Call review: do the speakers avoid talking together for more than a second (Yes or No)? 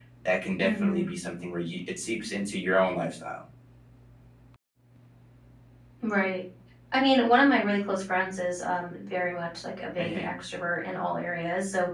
Yes